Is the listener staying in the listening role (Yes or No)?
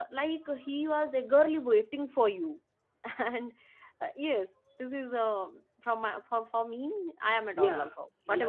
No